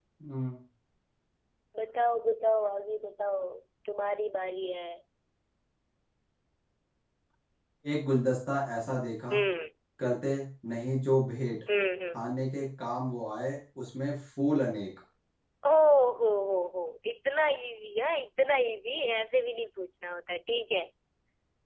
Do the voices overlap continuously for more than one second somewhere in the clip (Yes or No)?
No